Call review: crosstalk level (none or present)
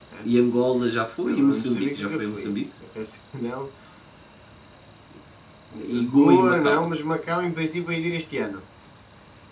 present